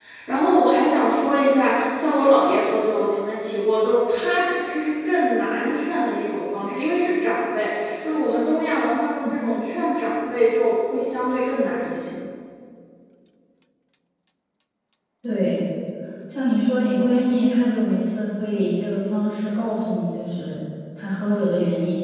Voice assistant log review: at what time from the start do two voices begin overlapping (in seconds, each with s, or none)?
none